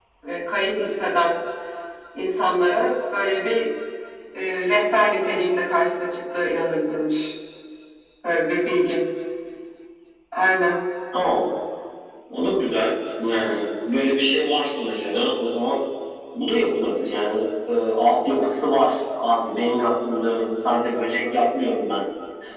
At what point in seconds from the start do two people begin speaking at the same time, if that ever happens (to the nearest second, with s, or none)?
none